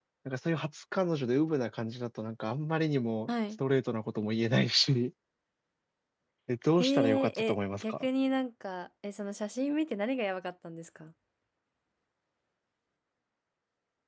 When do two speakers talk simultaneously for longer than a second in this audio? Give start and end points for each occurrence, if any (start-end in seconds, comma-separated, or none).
6.8-8.1